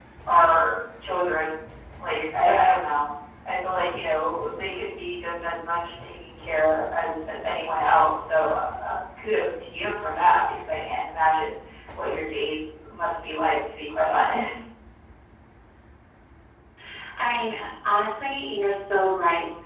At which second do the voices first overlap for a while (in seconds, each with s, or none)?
none